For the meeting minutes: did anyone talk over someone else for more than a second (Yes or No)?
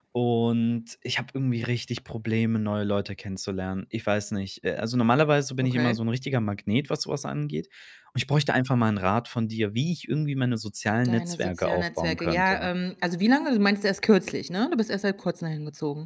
Yes